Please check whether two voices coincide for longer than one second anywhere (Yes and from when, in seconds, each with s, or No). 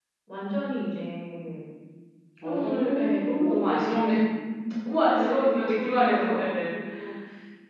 Yes, from 2.4 s